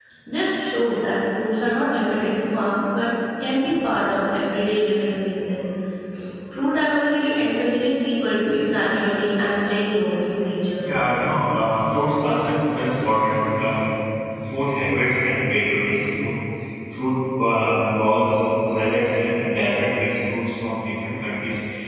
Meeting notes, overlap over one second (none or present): none